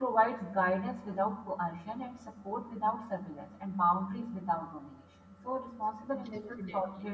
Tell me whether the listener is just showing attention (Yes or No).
Yes